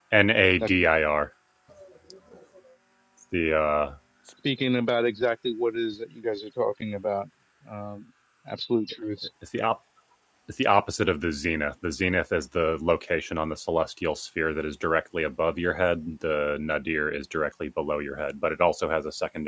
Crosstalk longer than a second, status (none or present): none